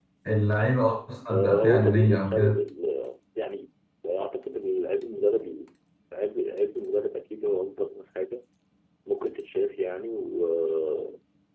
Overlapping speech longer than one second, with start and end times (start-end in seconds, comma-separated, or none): 1.3-2.5